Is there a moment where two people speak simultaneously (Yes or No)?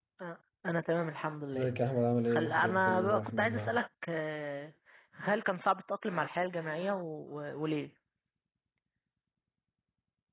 Yes